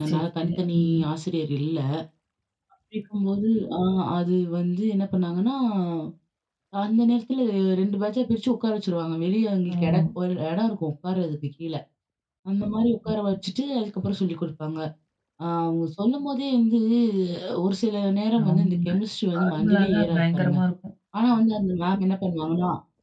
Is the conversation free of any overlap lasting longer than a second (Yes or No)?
No